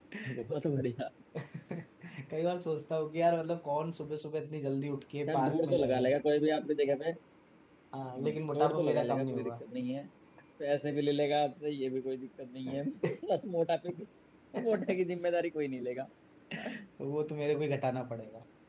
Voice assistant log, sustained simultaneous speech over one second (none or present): present